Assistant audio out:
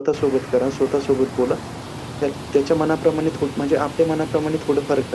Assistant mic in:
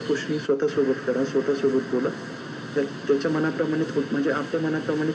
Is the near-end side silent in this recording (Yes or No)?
Yes